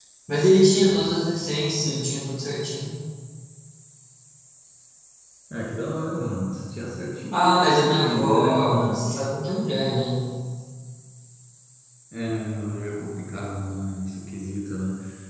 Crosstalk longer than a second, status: present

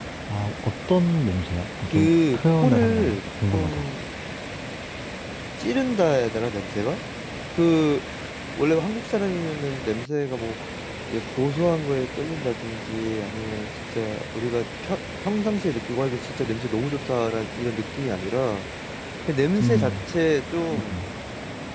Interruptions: present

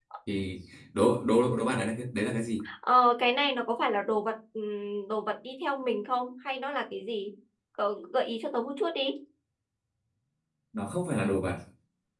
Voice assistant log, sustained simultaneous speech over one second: none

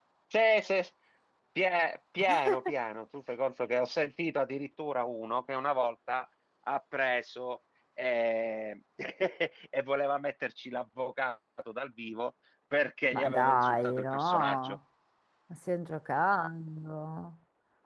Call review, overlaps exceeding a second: present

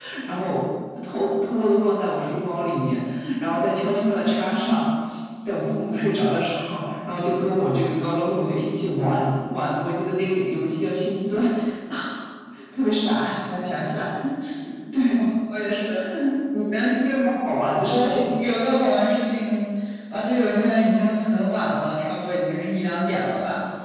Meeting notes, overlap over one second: none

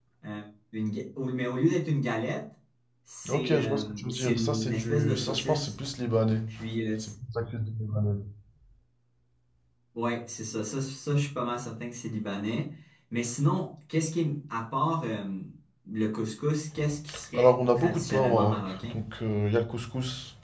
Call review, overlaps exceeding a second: present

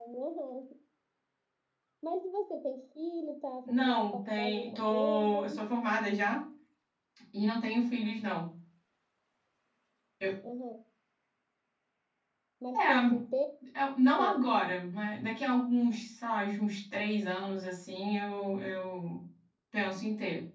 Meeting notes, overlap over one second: present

